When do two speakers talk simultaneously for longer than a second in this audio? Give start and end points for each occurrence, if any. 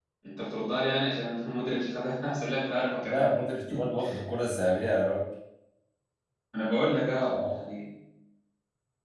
none

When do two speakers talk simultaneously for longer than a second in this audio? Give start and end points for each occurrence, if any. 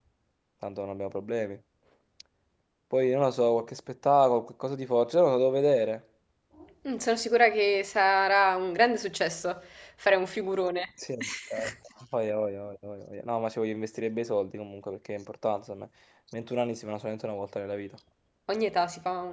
none

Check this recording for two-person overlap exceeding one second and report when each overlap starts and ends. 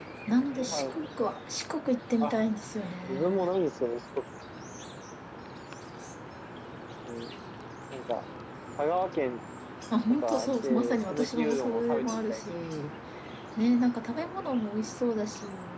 10.1-12.4

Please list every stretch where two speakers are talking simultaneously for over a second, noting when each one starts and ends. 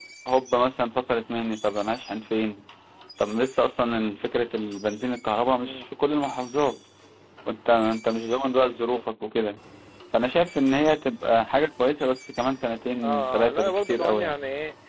13.0-14.3

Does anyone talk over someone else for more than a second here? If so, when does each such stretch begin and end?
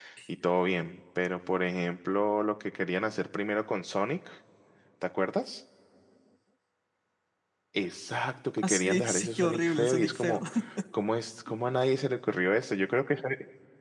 8.6-10.4

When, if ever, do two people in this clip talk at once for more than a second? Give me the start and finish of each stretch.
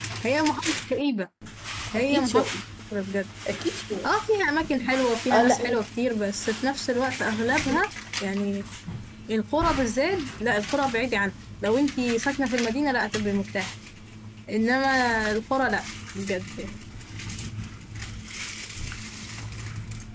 none

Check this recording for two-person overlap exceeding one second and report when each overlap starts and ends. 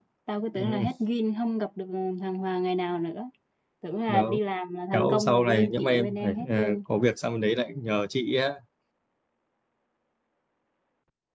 4.9-6.8

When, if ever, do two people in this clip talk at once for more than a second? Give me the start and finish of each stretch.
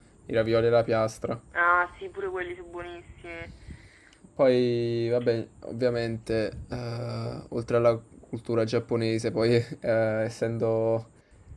none

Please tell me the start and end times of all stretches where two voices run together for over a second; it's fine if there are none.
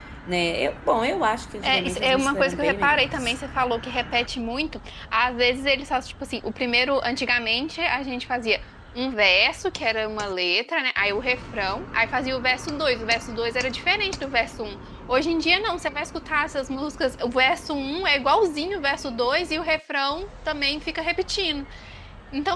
1.6-3.3

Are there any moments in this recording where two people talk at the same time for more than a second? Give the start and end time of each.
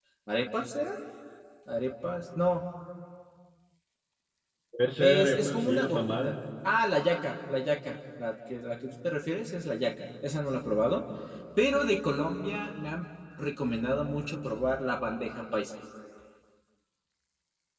5.0-6.3

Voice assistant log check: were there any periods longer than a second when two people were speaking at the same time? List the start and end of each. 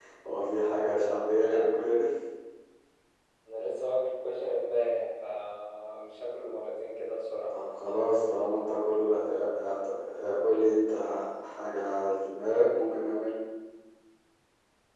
none

